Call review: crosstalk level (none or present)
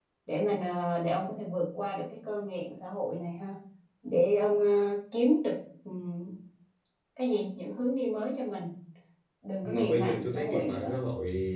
present